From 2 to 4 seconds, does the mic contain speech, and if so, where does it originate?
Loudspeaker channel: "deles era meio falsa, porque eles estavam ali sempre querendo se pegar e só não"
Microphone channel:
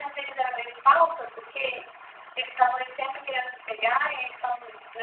echo only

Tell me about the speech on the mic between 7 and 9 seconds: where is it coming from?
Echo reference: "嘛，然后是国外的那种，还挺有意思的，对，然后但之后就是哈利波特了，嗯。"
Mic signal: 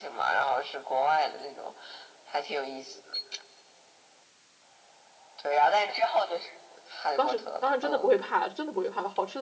both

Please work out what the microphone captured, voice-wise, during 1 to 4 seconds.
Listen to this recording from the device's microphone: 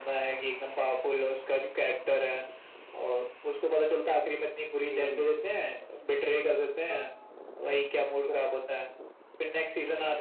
echo only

